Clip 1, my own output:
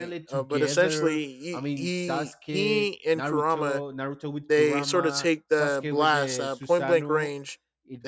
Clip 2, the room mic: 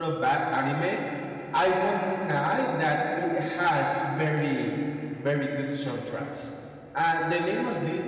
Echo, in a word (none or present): none